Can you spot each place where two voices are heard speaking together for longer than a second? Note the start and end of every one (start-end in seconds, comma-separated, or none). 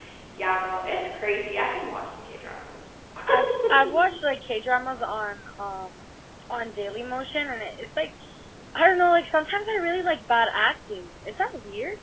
none